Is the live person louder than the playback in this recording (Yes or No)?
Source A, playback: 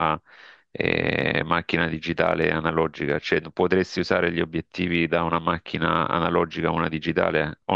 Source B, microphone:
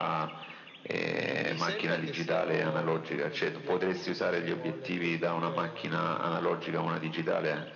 No